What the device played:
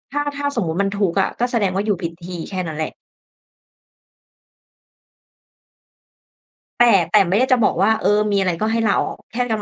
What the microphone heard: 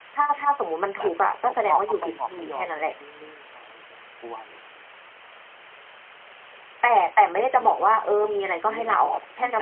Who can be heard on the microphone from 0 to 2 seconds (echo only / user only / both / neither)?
both